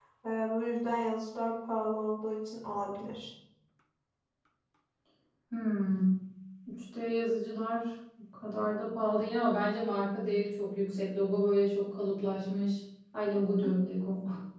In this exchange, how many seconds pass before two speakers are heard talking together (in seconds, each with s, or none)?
none